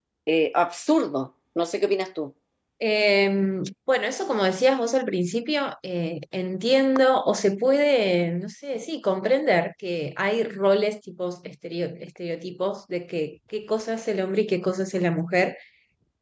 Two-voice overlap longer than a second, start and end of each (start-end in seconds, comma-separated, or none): none